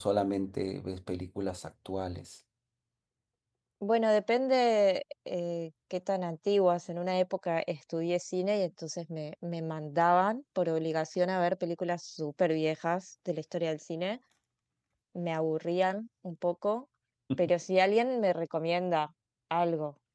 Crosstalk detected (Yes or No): No